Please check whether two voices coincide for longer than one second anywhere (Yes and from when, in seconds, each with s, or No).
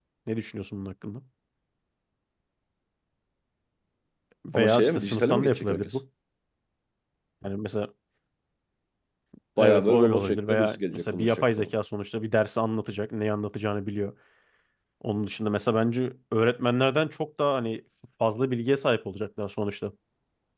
Yes, from 4.5 s